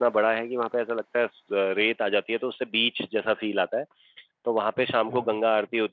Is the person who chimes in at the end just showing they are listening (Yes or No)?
Yes